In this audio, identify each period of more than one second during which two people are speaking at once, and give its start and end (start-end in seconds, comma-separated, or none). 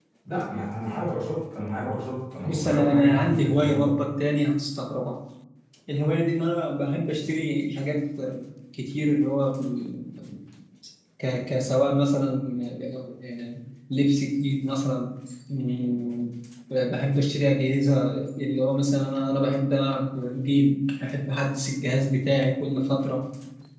2.5-3.9